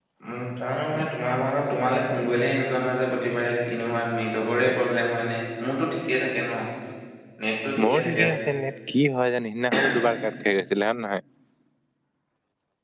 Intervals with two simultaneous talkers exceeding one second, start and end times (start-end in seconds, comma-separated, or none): none